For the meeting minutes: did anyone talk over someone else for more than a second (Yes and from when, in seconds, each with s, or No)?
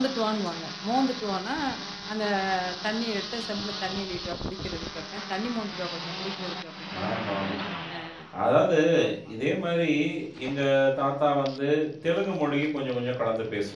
No